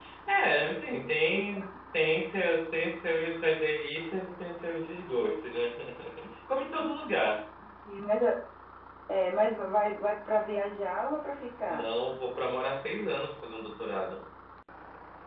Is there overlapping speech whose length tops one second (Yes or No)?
No